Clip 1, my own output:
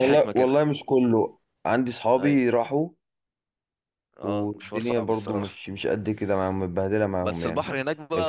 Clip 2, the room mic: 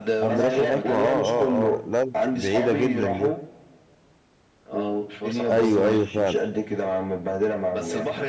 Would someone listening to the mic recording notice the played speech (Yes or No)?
Yes